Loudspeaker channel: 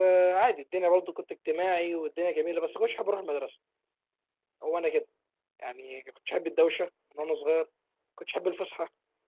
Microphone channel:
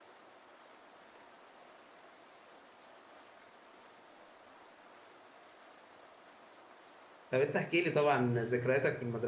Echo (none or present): none